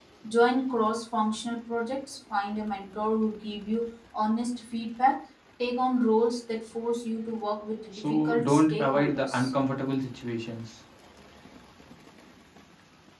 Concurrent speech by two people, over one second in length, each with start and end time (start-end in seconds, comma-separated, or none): 7.9-9.5